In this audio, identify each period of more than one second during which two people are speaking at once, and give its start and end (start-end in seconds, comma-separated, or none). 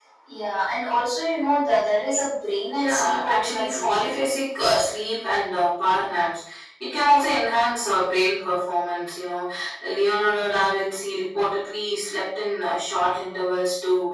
2.8-4.2